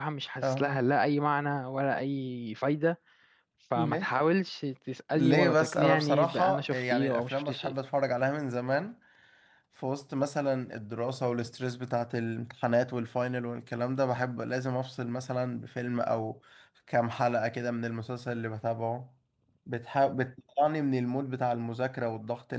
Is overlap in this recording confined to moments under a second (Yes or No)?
No